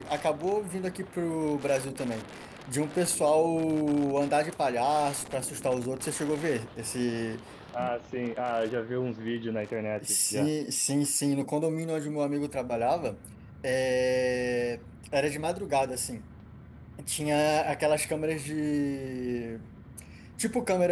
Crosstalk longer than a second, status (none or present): none